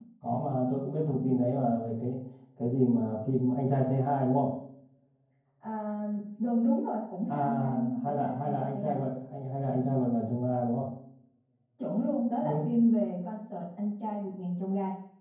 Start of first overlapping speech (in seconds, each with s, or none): 7.3 s